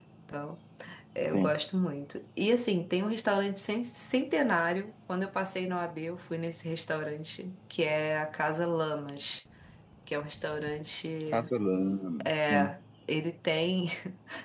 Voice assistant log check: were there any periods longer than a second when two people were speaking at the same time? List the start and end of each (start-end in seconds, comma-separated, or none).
none